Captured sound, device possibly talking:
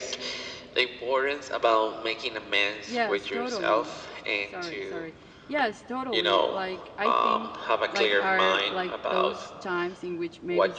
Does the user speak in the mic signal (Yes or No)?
Yes